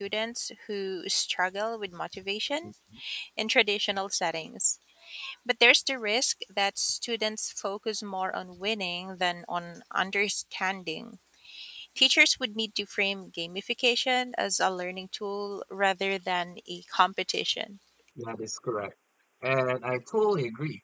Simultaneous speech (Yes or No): No